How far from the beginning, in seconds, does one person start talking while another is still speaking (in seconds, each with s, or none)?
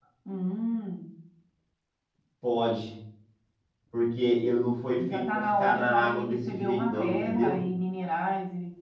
5.0 s